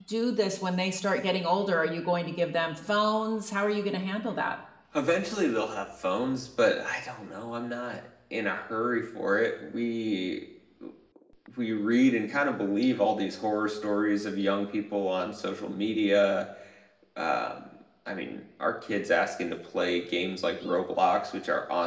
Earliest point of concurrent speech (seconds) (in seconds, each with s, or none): none